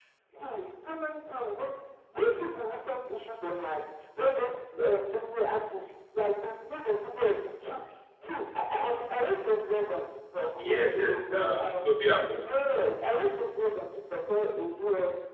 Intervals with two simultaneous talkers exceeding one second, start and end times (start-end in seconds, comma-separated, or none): 10.5-11.9